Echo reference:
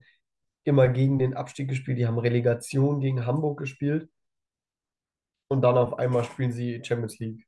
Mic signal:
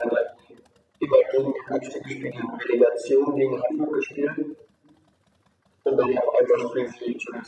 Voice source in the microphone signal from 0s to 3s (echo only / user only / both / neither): echo only